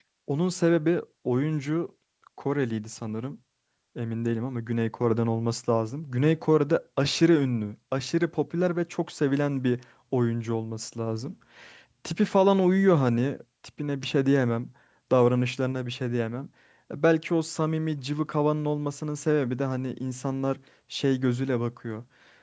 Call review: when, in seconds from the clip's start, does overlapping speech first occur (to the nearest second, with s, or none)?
none